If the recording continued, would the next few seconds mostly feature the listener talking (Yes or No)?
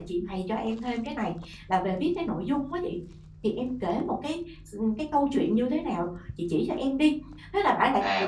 Yes